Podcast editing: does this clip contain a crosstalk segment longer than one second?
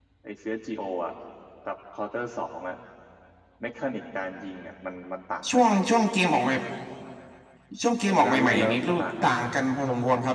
Yes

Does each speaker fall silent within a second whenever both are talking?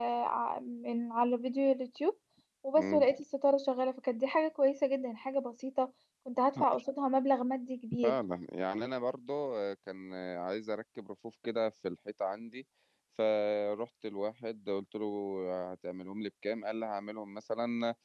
Yes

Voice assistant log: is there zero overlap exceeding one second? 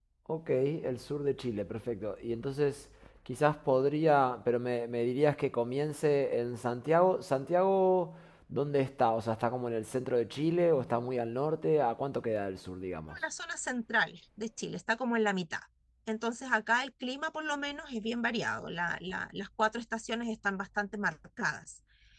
Yes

